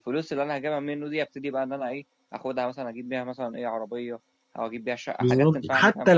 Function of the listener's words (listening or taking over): taking over